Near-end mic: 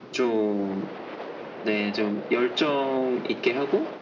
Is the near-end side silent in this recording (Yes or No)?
Yes